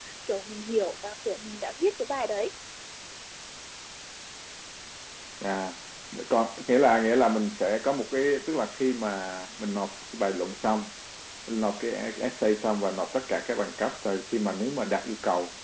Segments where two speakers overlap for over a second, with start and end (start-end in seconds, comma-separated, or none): none